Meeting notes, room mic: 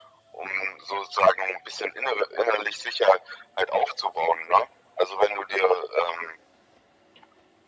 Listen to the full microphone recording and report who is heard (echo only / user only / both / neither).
echo only